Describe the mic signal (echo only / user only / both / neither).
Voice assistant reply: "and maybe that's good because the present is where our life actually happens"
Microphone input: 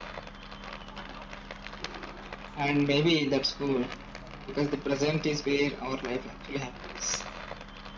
echo only